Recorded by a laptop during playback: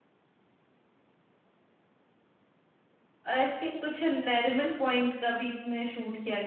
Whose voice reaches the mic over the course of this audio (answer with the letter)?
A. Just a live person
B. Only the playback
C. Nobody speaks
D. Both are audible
A